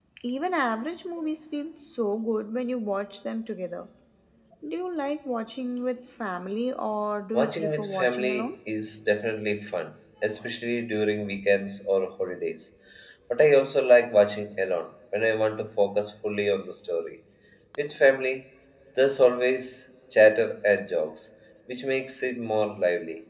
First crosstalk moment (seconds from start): 7 s

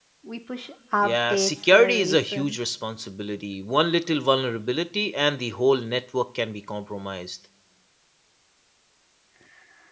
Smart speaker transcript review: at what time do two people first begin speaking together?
1 s

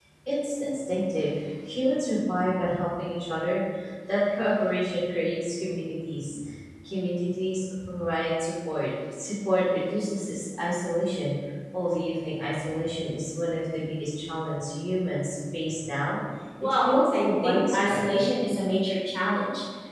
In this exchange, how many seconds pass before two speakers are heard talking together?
17 s

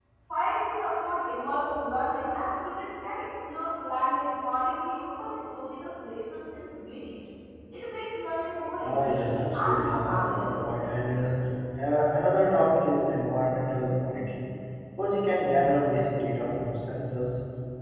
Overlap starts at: 9 s

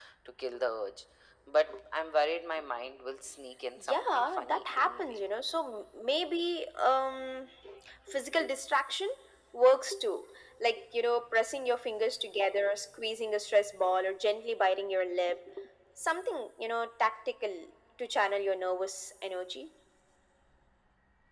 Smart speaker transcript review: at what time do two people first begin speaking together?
4 s

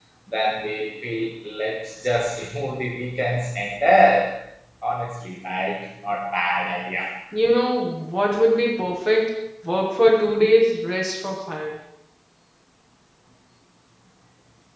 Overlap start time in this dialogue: none

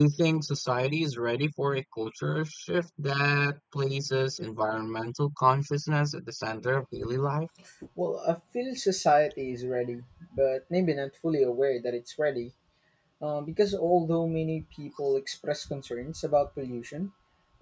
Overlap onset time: none

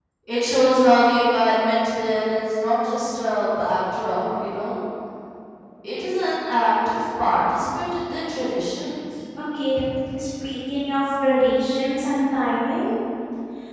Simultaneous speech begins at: none

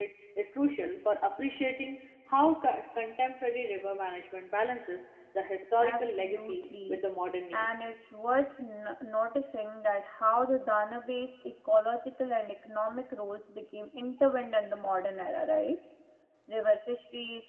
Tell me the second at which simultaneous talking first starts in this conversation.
6 s

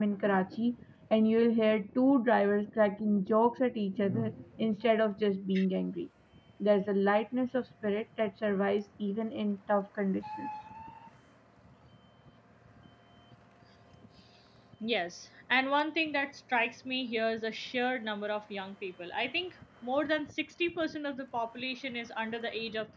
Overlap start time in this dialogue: none

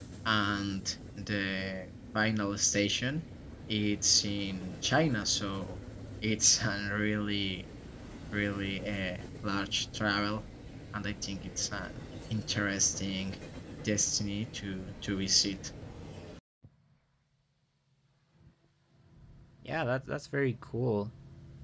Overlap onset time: none

